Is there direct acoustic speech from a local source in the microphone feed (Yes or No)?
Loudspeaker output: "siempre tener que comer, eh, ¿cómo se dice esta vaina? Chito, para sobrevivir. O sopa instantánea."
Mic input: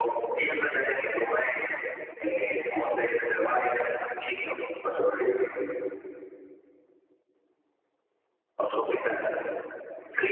No